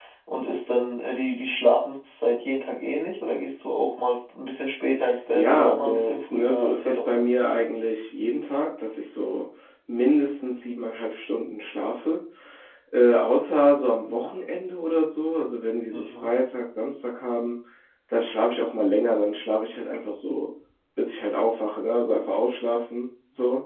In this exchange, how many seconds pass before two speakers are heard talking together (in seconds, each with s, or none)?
5.3 s